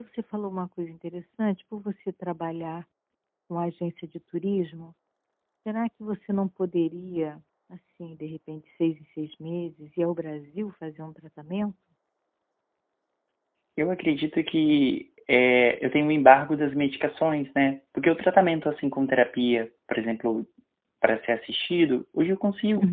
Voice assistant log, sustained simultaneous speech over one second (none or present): none